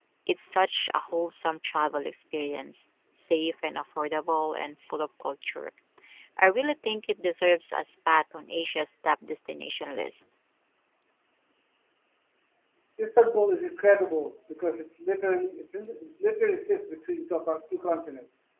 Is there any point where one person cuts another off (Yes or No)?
No